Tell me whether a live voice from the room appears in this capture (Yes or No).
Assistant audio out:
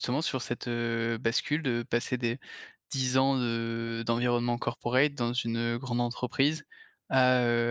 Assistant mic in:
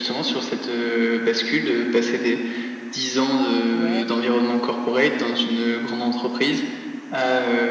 Yes